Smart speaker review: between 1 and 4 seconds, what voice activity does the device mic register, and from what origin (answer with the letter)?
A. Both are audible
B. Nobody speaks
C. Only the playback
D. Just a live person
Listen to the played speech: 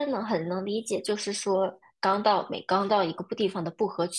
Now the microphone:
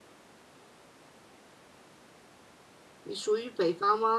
D